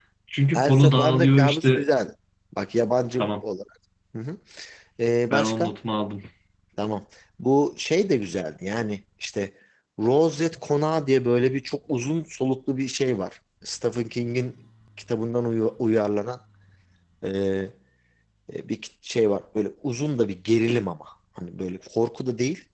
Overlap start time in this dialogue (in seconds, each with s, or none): 0.6 s